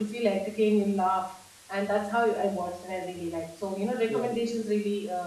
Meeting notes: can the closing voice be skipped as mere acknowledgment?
Yes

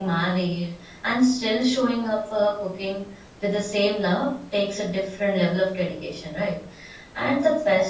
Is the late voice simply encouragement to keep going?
Yes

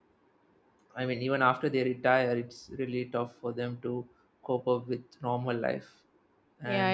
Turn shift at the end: Yes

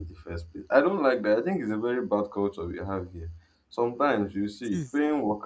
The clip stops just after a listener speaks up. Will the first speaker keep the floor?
Yes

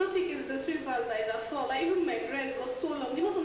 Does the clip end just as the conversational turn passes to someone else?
Yes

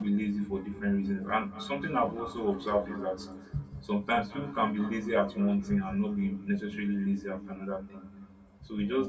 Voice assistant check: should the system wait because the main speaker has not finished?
Yes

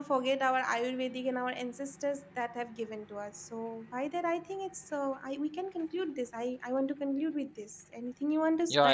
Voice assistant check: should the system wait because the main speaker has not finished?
No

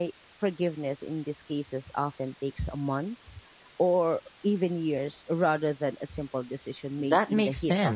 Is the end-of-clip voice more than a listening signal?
Yes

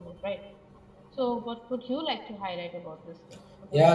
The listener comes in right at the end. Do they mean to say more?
Yes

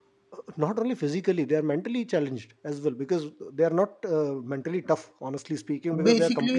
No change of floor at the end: Yes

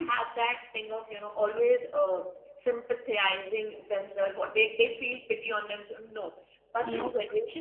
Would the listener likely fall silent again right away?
Yes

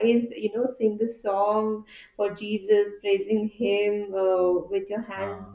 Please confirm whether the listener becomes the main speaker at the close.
No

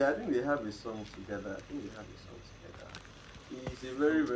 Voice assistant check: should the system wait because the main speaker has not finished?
Yes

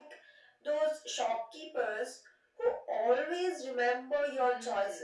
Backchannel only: No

